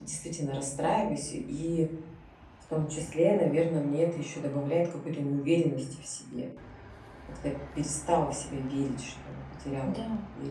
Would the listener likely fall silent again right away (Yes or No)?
No